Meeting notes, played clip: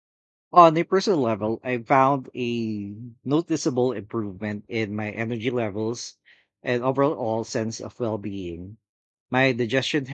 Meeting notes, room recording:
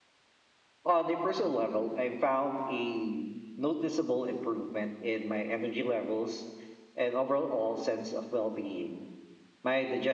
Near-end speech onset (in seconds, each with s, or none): none